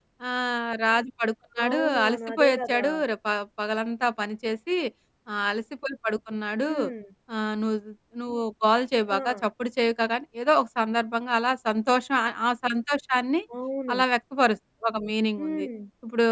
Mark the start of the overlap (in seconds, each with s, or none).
1.6 s